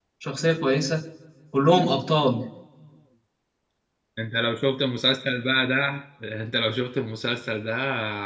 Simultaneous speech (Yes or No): No